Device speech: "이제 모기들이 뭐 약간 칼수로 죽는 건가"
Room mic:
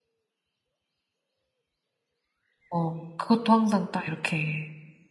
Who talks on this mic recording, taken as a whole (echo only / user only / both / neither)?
user only